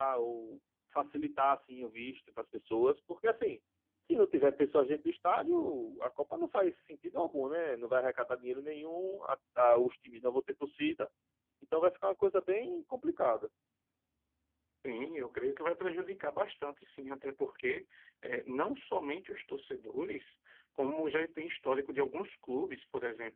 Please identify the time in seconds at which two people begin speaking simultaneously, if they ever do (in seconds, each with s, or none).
none